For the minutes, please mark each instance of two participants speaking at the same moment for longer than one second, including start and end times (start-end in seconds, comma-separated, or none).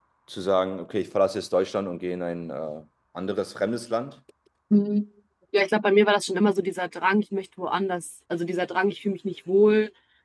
none